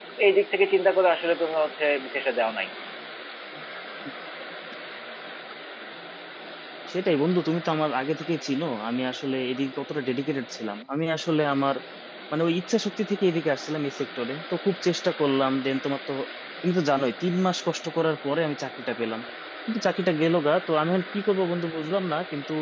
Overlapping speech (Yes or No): No